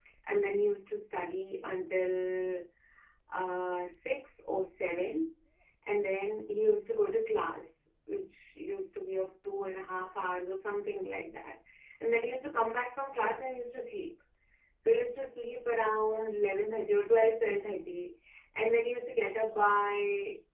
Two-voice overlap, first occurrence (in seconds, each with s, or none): none